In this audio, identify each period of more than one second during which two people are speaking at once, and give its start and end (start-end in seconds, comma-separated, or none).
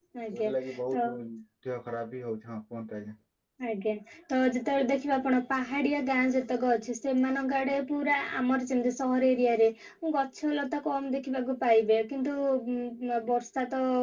none